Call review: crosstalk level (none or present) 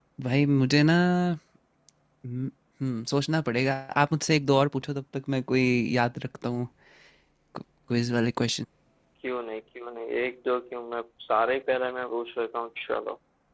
none